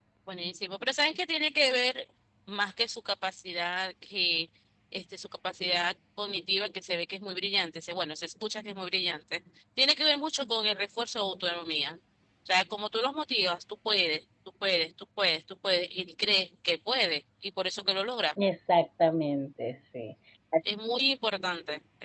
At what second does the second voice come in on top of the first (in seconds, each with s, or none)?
none